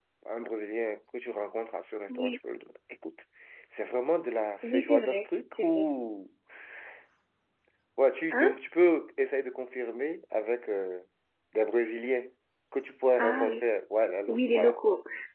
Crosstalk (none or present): present